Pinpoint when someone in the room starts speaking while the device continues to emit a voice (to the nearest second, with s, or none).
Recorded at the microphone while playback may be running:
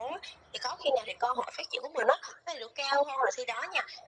none